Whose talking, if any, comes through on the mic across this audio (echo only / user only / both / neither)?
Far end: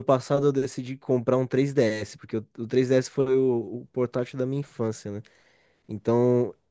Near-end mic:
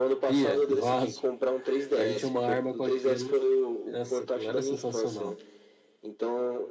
both